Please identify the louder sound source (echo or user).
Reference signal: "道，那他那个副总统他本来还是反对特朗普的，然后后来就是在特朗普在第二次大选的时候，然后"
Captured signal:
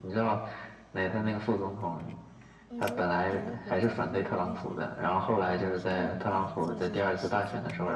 echo